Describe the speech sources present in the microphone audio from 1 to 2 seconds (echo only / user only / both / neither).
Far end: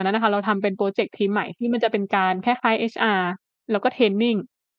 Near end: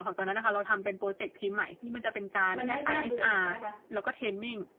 echo only